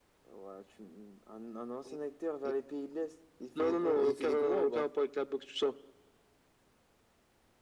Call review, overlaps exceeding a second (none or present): present